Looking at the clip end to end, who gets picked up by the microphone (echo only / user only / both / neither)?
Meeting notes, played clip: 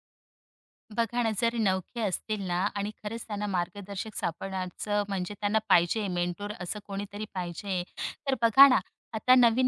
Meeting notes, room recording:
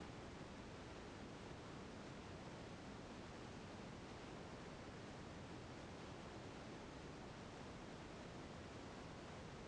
neither